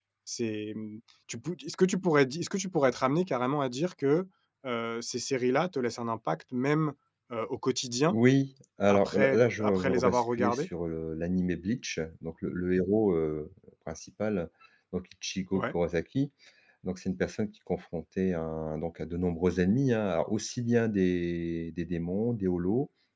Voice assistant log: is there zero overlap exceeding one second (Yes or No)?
No